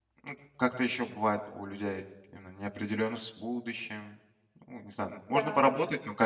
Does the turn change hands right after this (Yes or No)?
No